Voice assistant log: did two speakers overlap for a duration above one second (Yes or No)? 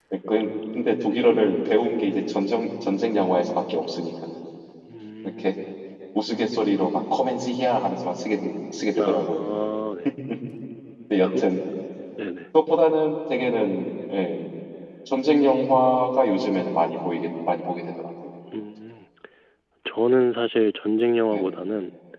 No